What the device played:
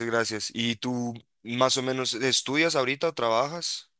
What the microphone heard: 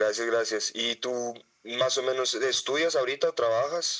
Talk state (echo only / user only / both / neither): echo only